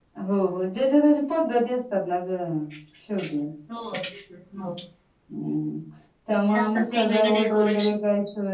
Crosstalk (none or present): present